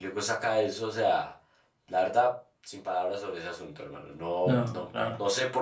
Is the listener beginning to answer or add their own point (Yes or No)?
No